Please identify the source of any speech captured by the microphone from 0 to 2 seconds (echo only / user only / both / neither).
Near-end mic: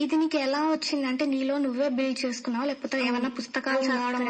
echo only